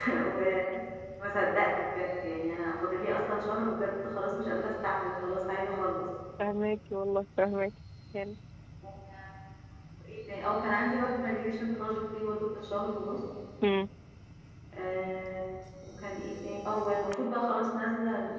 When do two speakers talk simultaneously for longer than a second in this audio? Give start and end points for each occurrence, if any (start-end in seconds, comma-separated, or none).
none